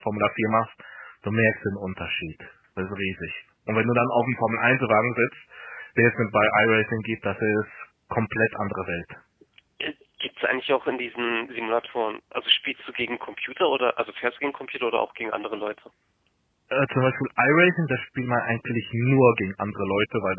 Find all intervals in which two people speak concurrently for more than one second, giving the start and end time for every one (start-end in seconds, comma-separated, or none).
none